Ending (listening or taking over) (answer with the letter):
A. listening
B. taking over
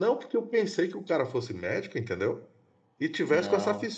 A